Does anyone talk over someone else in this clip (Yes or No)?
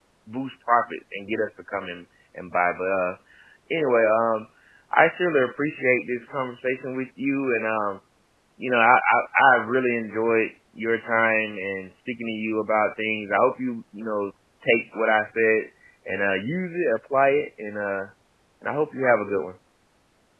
No